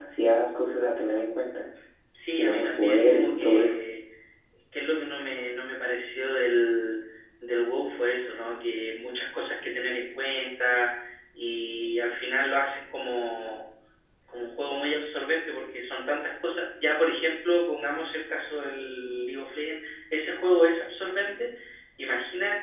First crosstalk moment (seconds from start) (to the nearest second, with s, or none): 2 s